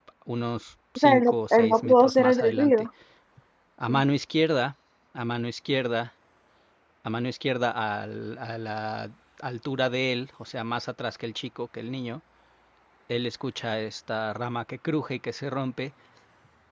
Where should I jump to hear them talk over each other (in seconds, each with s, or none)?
1.0 s